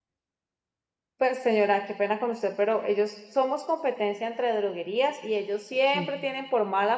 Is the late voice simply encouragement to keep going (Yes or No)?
Yes